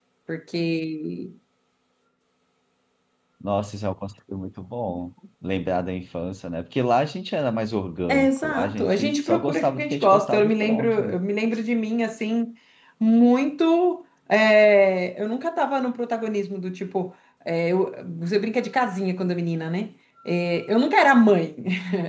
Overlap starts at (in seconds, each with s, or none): 8.1 s